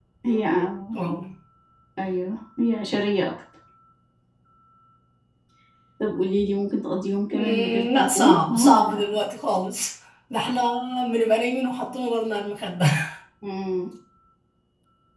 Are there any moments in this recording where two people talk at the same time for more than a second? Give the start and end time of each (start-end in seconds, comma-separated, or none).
7.3-9.0